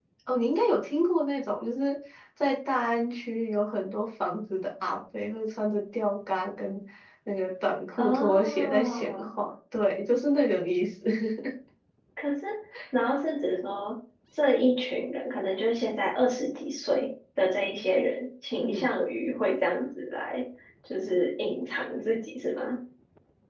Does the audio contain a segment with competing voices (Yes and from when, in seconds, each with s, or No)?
Yes, from 8.0 s